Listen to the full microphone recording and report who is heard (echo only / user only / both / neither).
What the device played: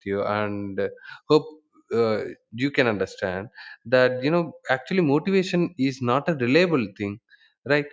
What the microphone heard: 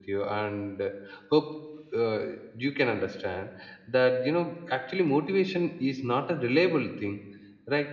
echo only